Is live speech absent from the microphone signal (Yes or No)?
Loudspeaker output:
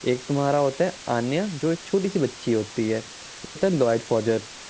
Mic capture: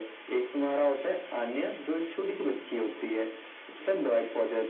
Yes